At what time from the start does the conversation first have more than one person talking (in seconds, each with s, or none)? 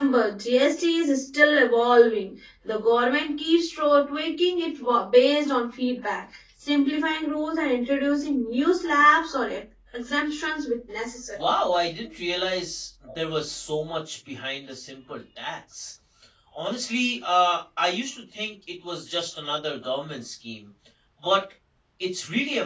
none